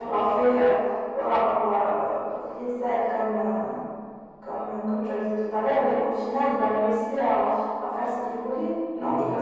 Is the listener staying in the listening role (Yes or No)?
No